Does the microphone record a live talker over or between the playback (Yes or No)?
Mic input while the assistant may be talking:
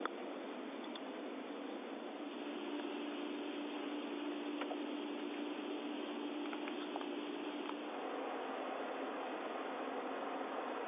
No